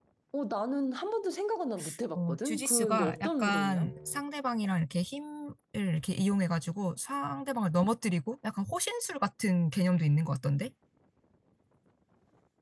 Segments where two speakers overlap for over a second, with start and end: 2.1-3.9

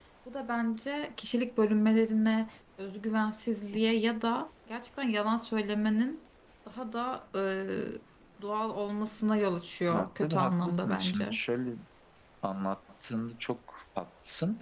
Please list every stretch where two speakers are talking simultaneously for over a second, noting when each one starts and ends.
9.9-11.4

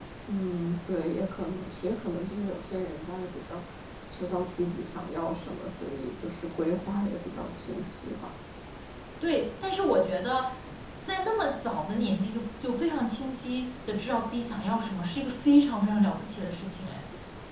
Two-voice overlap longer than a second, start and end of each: none

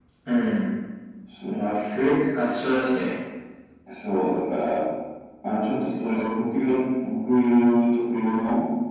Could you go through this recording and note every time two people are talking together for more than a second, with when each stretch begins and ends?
none

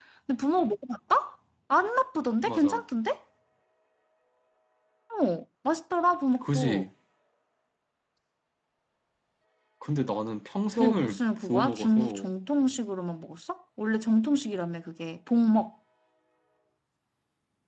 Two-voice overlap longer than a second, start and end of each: 10.8-12.3

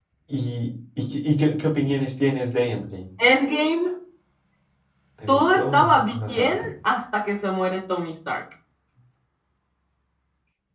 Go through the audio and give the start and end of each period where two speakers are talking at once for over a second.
5.3-6.7

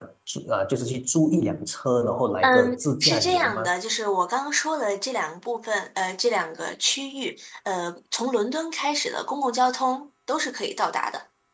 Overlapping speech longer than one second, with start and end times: 2.4-3.7

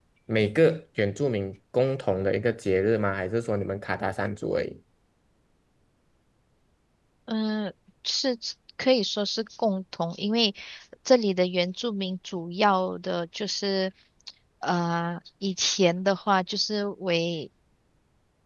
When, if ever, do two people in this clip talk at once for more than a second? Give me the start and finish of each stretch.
none

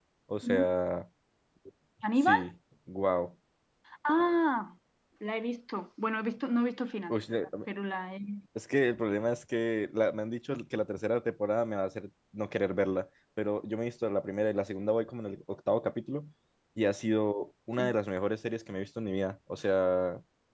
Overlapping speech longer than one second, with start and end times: none

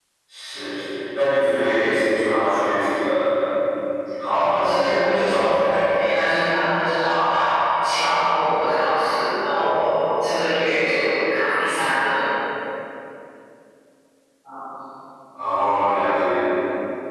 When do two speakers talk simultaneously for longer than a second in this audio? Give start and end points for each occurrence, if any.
4.3-5.6

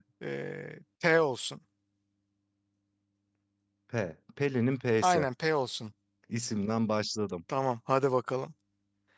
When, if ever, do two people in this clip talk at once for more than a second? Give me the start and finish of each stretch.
none

